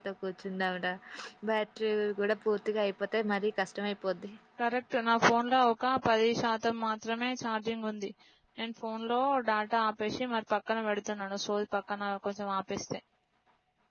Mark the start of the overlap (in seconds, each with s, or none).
none